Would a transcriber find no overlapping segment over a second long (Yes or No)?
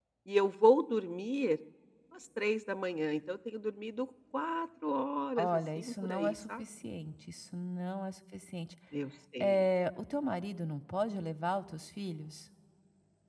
No